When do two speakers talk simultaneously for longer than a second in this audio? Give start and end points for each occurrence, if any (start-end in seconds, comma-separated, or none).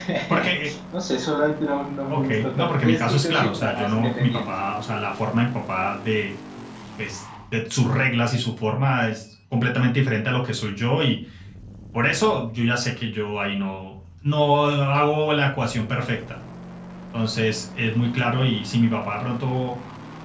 2.1-4.4